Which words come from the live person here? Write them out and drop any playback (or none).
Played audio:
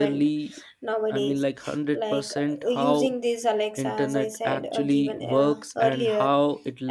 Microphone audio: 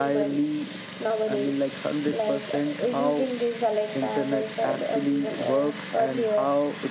none